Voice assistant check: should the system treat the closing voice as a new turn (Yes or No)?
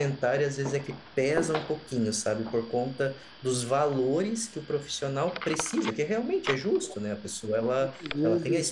No